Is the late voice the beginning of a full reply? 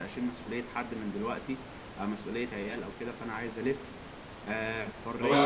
Yes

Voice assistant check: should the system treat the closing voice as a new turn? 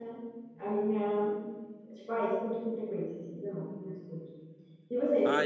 Yes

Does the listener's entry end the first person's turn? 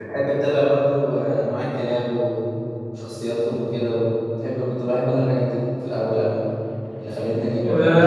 Yes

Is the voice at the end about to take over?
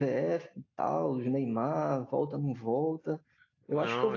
No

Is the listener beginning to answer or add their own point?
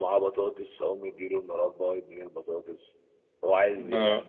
No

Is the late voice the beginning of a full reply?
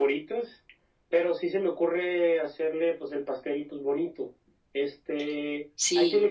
No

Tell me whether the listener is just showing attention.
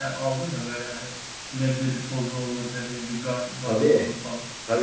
No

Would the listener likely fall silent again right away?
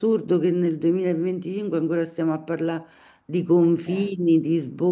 Yes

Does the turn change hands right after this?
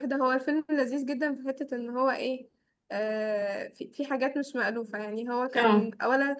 No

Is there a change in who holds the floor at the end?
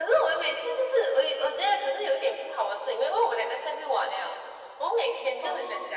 No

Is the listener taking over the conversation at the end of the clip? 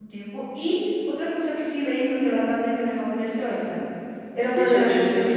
Yes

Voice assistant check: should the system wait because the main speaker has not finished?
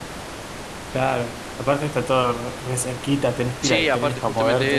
No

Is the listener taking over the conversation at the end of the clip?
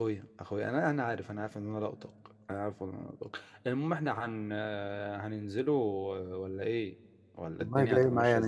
Yes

